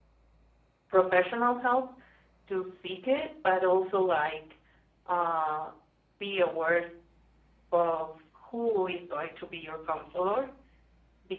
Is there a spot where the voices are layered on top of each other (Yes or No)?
No